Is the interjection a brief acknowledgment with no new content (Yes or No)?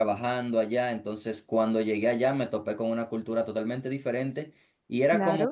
Yes